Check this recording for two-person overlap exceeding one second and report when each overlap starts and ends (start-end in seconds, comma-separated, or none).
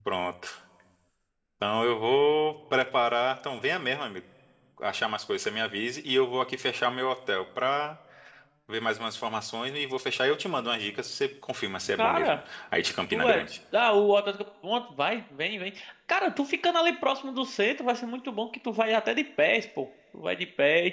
none